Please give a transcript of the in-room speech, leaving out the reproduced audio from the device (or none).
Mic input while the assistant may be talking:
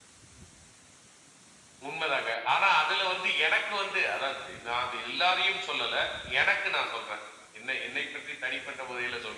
none